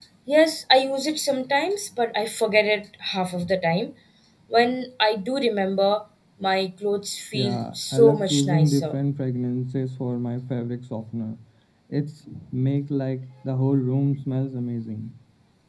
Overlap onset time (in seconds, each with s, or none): 7.3 s